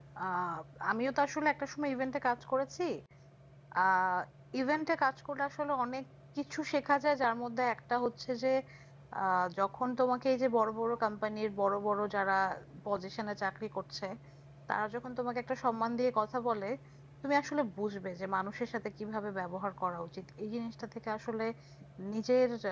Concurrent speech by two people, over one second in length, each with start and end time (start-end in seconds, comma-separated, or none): none